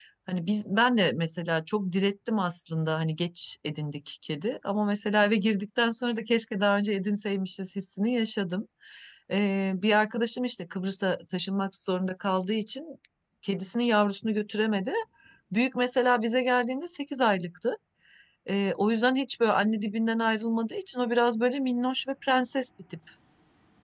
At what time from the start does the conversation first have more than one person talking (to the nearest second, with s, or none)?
none